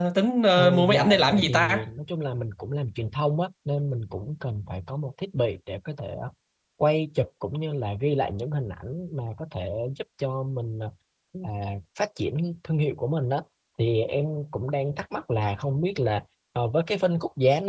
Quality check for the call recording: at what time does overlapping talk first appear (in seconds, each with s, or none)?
0.6 s